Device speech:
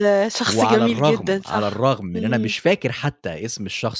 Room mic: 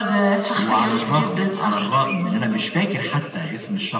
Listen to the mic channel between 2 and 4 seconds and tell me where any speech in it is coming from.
echo only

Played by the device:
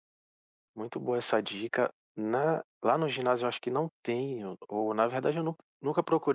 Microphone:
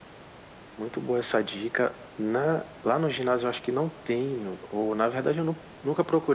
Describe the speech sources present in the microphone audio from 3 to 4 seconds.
echo only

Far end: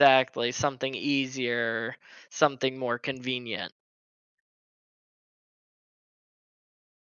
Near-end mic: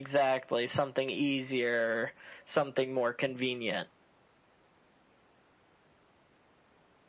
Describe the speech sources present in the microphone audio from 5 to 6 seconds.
neither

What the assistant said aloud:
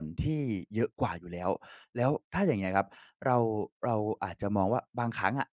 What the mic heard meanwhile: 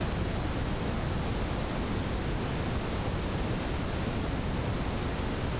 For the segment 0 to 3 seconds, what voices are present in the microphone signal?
neither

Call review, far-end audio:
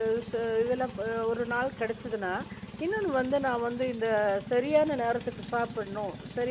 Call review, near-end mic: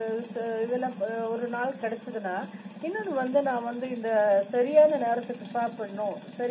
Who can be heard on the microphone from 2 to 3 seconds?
echo only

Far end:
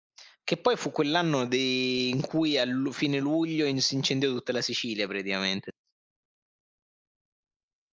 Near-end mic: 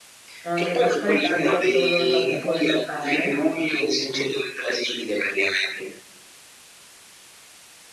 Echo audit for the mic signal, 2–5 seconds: both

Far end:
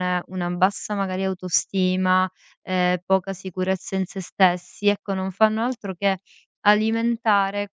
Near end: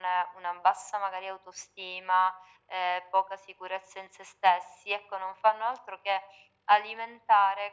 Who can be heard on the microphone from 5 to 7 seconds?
echo only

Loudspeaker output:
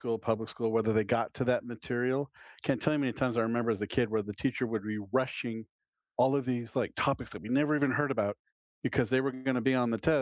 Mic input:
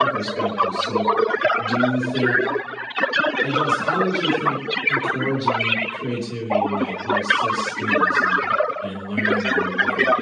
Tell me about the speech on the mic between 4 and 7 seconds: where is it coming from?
both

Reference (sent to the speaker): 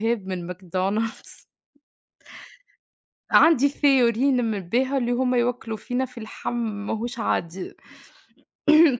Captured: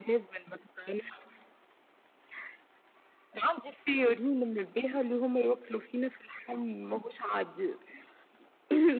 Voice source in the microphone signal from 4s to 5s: echo only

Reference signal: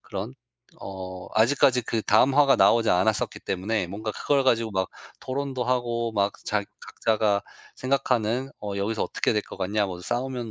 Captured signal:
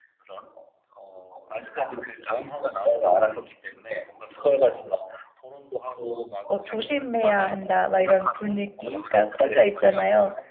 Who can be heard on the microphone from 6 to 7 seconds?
both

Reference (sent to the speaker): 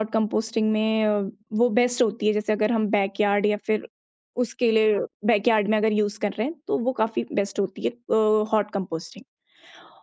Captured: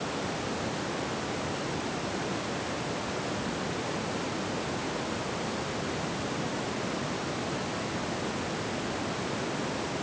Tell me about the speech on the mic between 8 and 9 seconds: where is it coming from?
neither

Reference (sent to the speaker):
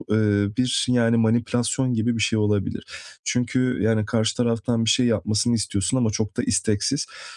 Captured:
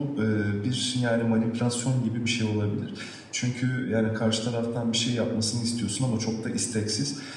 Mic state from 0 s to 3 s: echo only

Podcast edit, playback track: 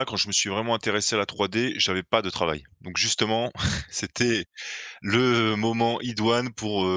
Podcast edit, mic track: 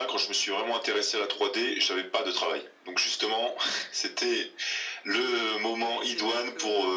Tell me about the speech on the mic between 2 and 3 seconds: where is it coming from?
echo only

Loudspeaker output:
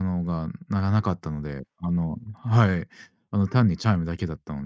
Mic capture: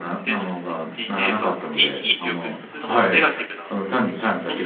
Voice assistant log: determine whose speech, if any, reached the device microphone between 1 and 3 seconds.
both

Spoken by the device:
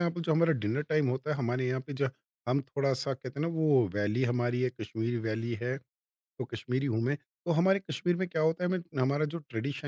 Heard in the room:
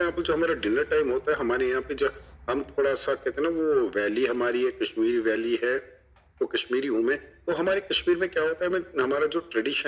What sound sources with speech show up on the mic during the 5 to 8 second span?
echo only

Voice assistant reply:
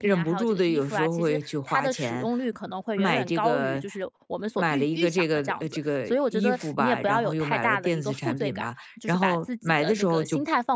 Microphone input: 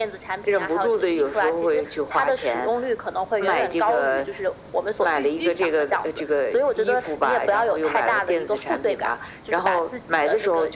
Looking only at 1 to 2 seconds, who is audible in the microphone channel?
echo only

